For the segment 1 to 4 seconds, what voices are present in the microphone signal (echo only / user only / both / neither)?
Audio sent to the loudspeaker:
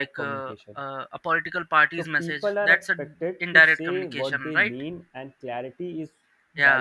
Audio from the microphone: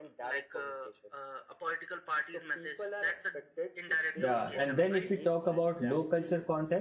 echo only